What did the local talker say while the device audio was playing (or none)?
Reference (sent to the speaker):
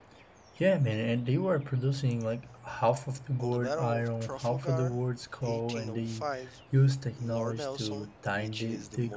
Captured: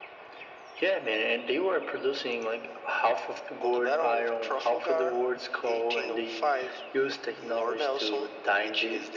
none